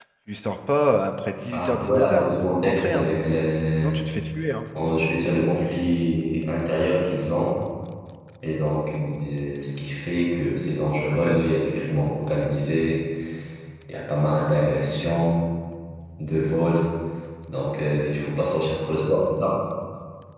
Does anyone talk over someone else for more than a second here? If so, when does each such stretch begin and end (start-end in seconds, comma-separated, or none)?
1.5-3.1